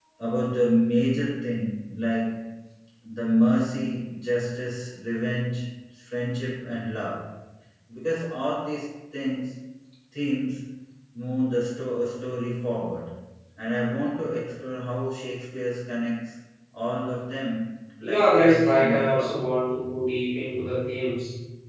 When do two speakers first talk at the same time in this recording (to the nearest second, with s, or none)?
18 s